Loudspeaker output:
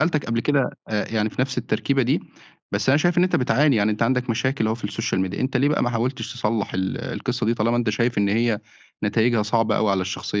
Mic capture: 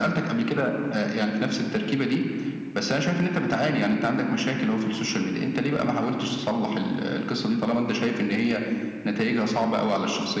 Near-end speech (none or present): none